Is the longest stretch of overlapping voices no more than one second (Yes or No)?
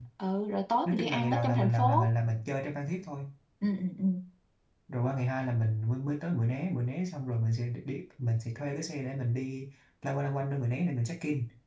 No